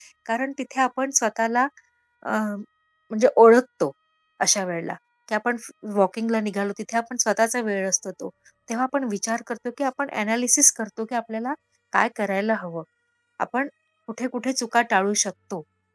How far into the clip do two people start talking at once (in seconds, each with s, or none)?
none